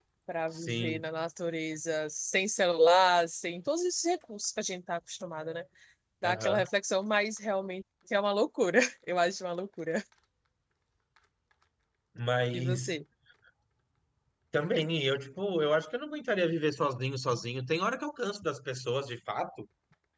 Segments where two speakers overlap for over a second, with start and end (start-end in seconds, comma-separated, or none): none